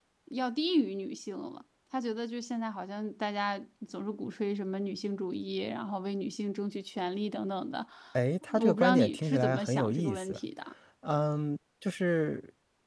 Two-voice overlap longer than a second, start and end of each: 8.6-10.4

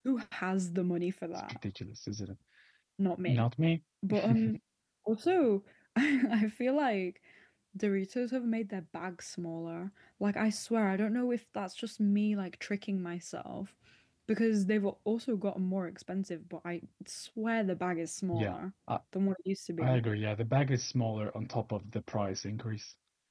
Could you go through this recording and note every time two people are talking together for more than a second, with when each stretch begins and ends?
none

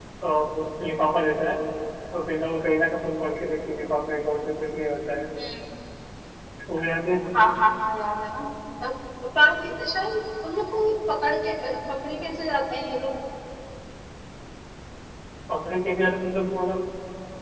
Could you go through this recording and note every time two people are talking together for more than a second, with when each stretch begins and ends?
none

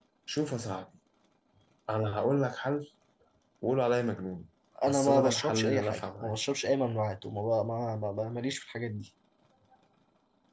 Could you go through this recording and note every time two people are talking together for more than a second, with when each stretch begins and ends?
4.9-6.4

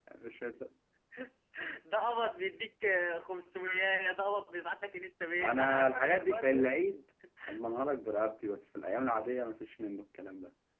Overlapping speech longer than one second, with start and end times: 5.4-6.7

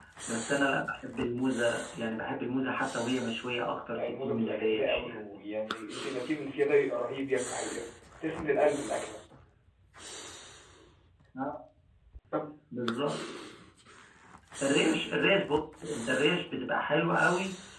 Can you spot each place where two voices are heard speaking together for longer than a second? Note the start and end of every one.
3.9-5.2

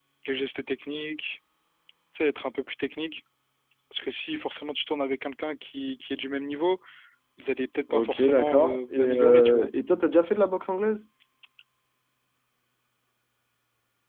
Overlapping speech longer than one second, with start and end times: 7.9-9.7

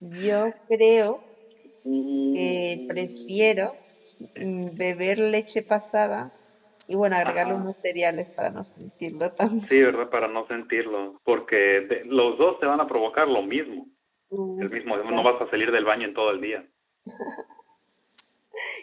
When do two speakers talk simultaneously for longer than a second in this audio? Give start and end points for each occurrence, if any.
2.3-3.5

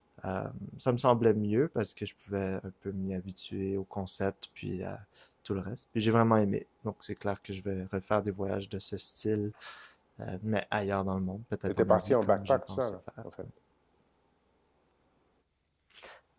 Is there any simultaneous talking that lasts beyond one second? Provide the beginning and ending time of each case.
11.7-13.0

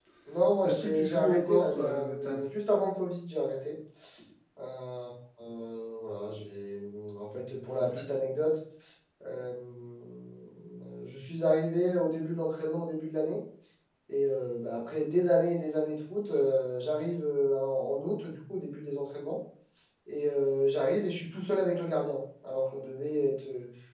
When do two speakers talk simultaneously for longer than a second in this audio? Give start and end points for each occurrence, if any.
0.6-2.4

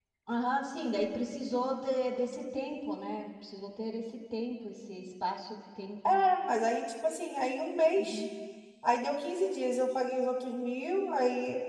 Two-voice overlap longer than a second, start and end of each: none

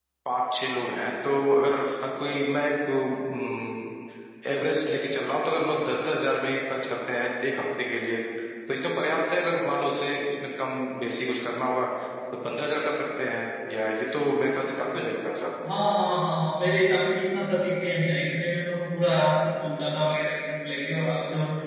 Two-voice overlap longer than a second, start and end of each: none

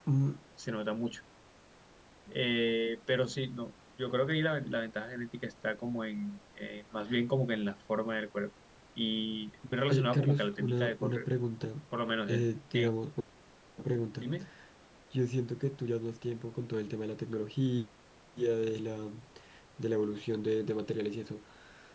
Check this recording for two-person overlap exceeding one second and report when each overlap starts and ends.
9.9-11.3

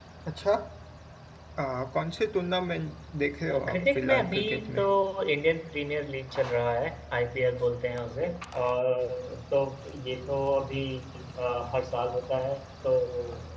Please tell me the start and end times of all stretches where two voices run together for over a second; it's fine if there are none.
3.5-4.8

